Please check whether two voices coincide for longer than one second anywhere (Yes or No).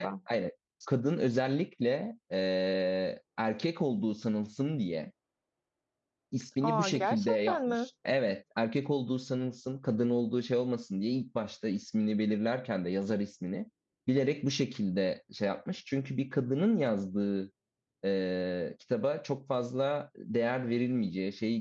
Yes